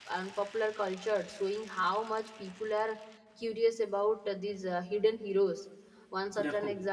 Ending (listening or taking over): listening